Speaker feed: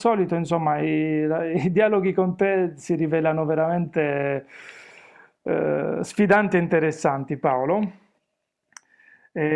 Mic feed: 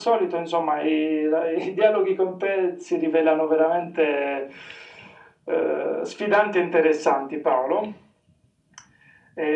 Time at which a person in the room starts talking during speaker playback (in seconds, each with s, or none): none